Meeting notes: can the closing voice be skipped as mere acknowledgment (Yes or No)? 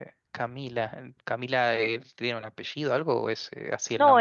No